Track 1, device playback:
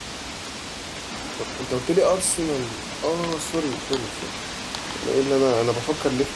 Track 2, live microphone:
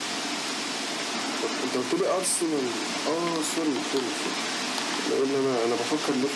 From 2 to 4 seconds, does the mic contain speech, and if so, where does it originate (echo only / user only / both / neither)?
echo only